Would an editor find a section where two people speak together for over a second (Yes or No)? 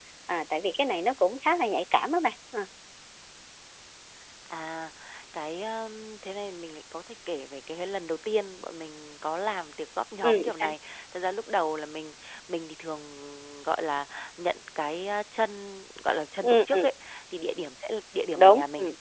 No